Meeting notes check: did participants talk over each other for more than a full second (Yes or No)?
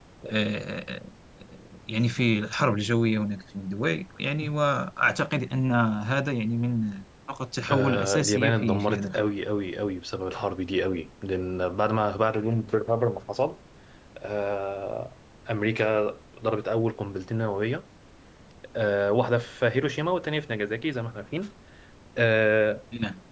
Yes